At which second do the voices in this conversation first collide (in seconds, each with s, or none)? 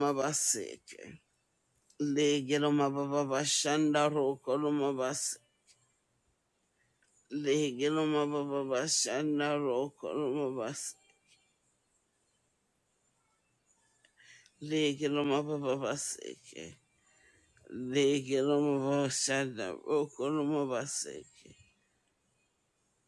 none